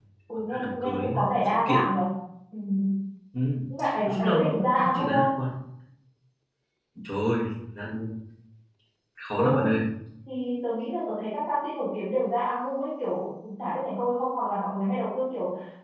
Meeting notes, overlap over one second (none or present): present